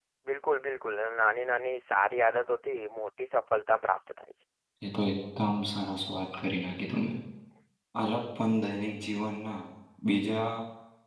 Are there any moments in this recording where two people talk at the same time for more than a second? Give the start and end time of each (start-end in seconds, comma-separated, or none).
none